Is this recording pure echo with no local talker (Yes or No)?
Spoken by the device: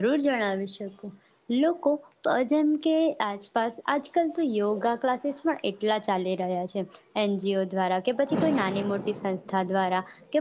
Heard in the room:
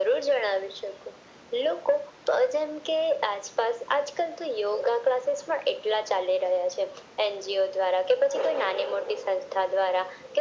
Yes